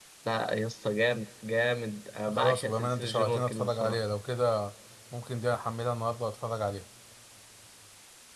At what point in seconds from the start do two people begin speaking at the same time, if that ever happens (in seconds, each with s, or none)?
2.2 s